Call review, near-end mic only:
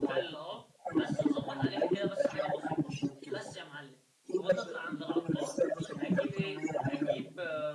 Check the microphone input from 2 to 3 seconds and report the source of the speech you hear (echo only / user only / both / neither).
both